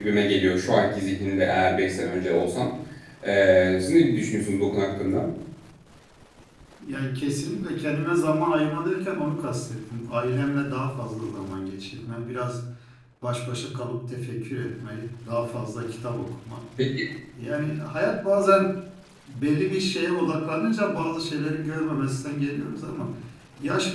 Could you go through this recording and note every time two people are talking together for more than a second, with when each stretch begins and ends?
none

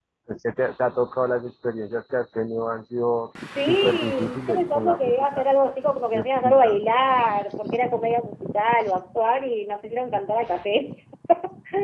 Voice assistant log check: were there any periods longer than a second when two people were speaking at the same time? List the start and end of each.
3.7-5.4

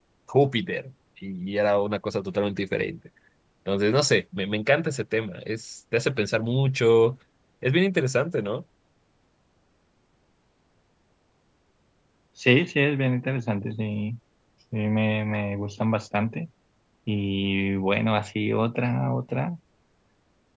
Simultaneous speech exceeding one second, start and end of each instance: none

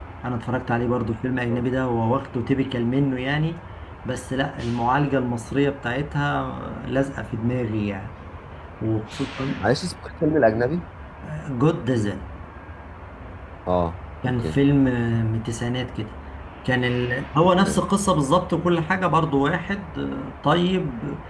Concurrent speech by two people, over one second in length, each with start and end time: none

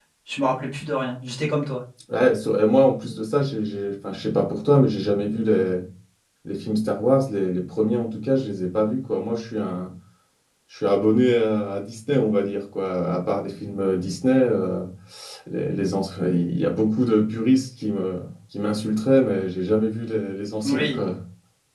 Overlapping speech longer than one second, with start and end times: none

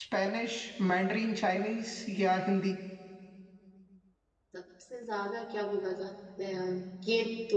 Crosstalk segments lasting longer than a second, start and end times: none

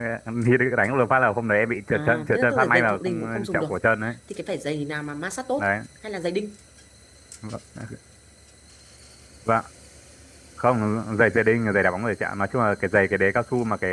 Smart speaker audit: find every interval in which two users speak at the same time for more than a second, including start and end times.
1.9-3.7

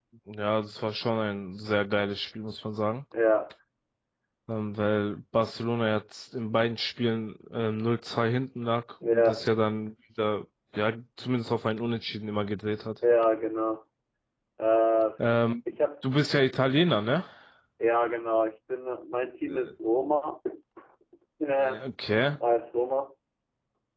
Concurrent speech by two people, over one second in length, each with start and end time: none

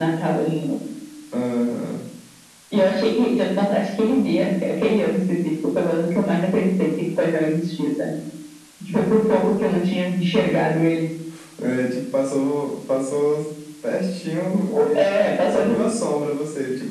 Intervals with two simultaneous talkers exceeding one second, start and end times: 14.5-15.9

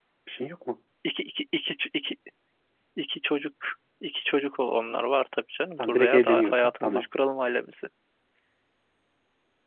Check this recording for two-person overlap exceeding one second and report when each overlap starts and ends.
5.8-7.0

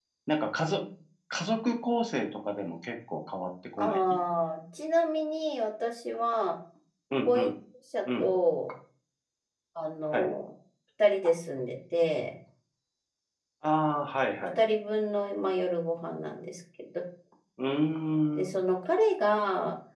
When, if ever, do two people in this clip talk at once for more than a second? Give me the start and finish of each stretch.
none

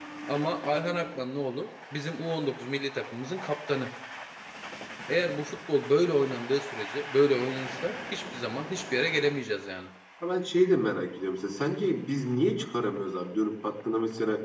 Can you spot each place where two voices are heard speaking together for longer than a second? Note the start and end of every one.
none

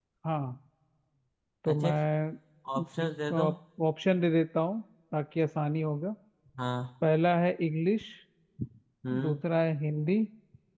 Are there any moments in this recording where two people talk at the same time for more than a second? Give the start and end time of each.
none

